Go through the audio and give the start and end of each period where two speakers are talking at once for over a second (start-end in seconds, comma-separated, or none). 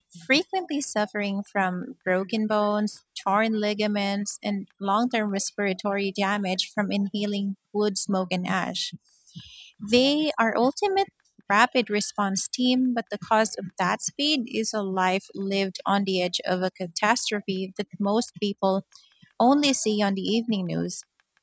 none